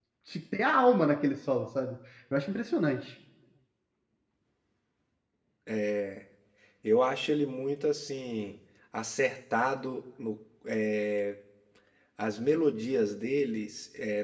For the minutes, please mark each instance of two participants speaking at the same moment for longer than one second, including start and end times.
none

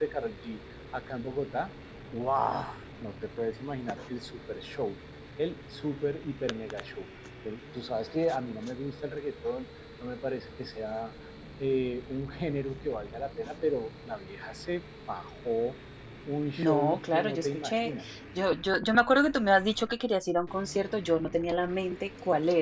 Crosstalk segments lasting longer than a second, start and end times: 16.6-17.9

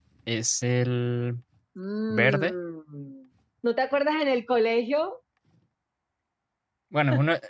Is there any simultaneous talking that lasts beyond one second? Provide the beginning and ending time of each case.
none

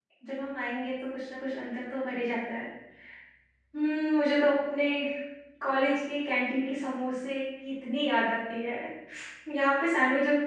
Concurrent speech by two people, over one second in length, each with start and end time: none

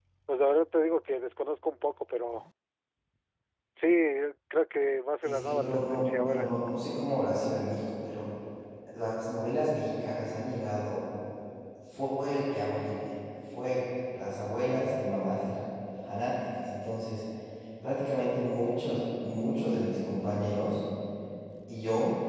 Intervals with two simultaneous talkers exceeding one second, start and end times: 5.2-6.5

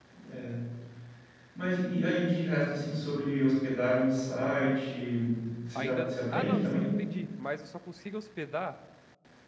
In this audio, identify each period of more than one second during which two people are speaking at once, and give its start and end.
5.8-7.0

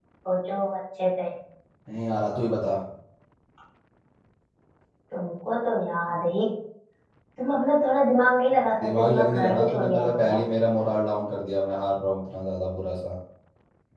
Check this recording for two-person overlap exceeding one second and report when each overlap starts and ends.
8.8-10.4

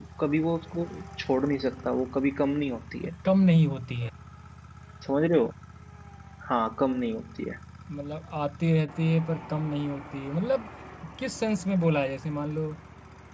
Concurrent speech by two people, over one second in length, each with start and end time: none

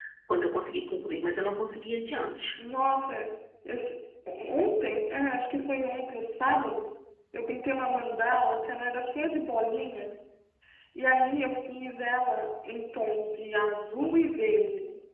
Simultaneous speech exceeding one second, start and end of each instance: none

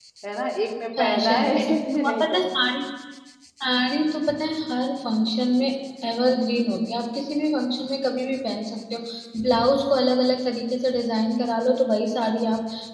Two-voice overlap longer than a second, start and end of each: 1.0-2.4

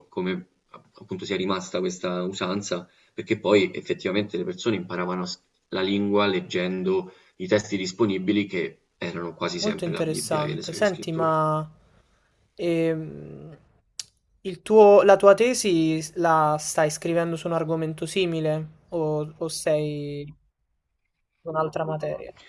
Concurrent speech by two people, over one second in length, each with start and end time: 9.6-11.3

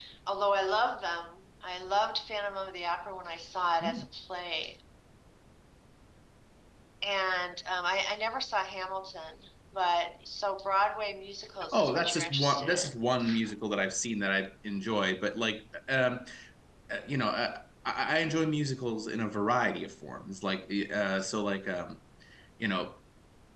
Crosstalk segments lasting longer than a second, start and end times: 11.7-12.9

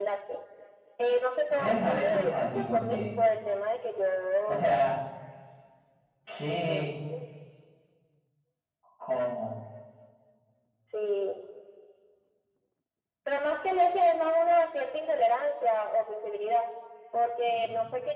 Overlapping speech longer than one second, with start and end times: 1.5-3.2

